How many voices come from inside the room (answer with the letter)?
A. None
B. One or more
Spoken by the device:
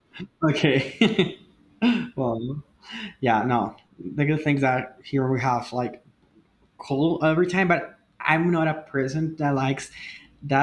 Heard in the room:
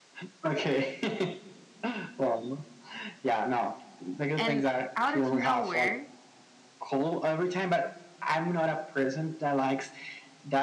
B